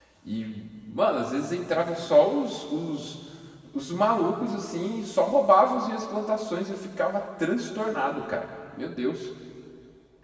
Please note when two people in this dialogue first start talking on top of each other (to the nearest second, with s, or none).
none